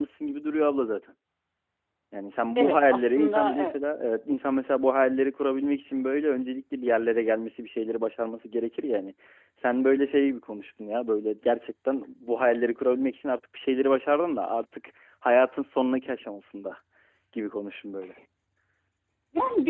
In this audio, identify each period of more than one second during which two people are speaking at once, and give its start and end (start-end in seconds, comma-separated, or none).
2.6-3.8